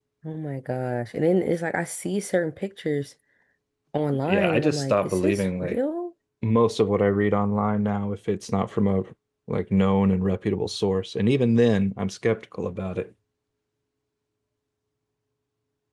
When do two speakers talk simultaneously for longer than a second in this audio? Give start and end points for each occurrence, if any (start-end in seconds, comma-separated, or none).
4.2-5.8